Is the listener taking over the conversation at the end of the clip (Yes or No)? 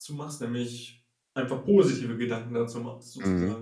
Yes